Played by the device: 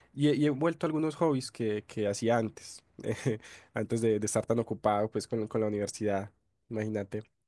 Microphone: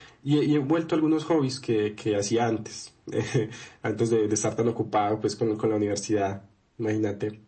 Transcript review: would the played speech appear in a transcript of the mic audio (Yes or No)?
Yes